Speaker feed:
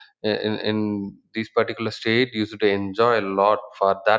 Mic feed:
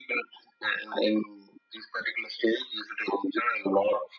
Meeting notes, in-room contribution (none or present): none